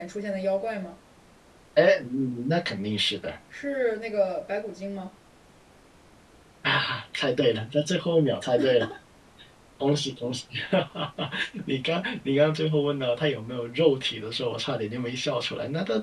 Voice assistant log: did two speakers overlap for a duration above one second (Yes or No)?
No